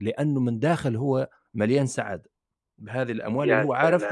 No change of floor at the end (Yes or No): Yes